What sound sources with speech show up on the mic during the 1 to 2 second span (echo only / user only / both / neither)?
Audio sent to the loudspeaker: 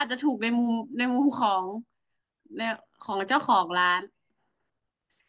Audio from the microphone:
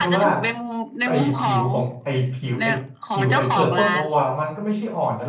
both